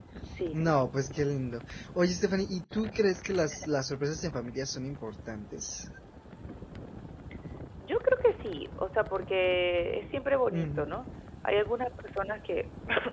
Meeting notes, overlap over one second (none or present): none